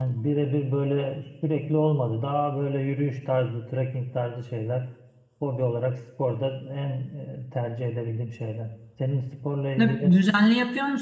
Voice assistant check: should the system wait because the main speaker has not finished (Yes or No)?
No